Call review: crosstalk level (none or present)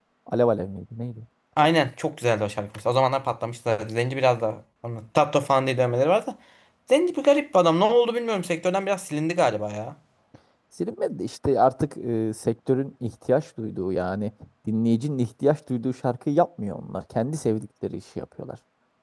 none